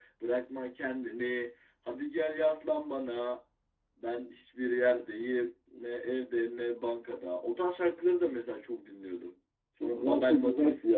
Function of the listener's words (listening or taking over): taking over